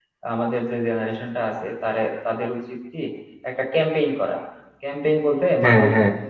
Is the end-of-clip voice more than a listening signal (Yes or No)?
No